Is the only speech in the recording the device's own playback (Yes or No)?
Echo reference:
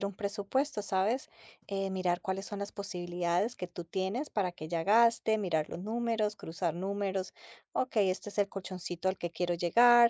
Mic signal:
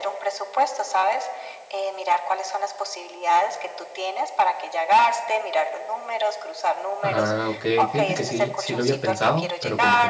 No